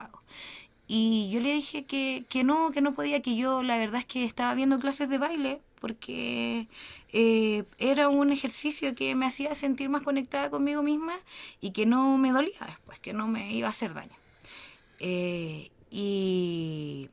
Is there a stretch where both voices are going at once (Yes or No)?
No